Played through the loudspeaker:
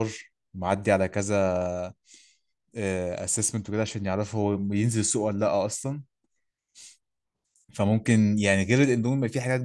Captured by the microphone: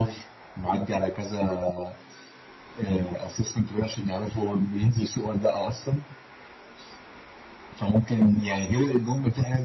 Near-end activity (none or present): none